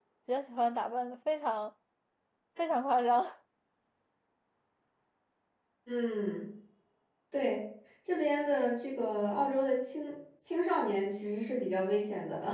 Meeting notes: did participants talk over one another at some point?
No

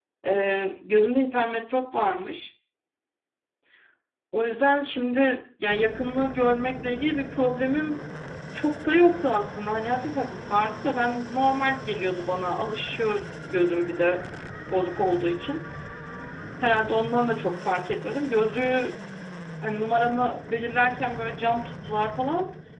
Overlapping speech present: No

